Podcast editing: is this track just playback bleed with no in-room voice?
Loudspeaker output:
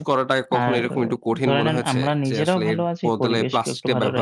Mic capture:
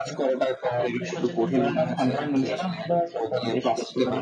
No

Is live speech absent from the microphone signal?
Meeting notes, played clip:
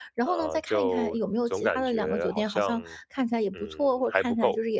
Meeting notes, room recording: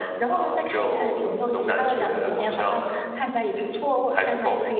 Yes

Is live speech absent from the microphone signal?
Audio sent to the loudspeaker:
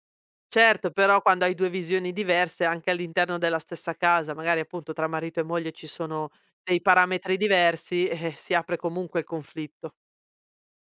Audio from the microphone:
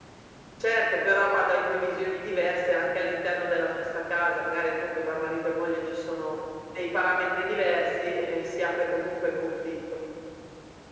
Yes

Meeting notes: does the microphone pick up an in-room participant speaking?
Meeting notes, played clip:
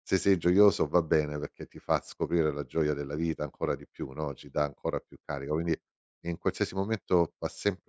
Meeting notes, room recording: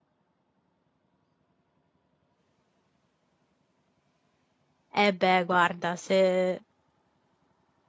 Yes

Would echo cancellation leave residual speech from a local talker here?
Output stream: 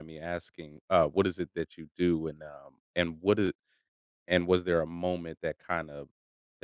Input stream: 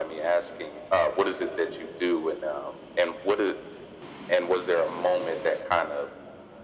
No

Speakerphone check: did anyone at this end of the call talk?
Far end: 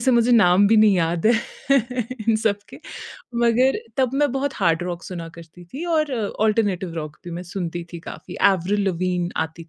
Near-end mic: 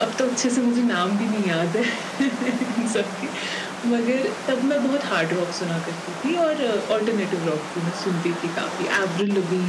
No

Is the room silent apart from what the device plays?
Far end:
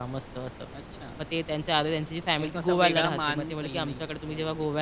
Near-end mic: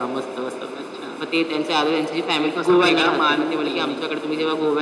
Yes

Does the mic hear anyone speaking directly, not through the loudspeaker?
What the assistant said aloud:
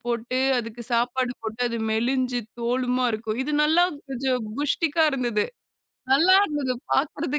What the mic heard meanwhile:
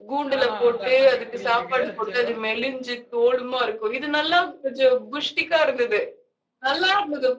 Yes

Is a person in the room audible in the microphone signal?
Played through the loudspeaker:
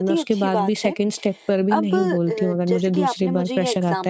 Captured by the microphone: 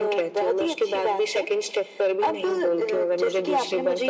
No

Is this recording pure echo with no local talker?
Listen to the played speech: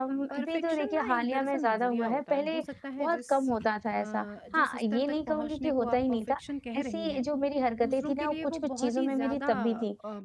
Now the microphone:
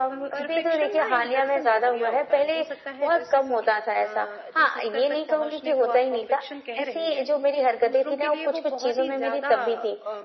Yes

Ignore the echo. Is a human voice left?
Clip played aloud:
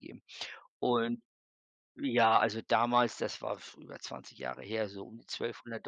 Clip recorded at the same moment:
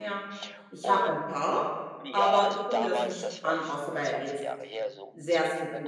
Yes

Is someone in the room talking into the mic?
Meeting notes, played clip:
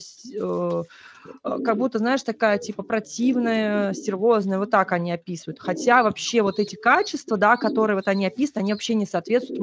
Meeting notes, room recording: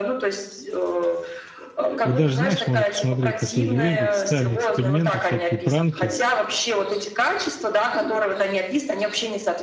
Yes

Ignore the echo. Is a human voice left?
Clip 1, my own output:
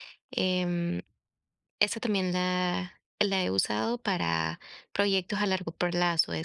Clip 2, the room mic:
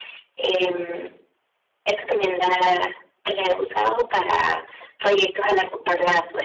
No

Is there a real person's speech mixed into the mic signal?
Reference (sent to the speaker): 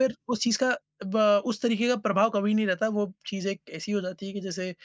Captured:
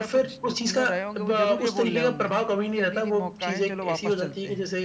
Yes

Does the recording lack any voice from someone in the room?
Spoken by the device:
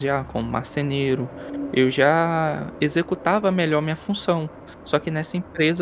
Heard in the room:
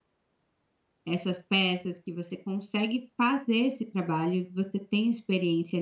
No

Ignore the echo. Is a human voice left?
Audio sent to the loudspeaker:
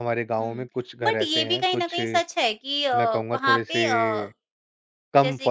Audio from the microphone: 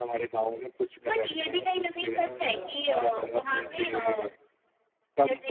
Yes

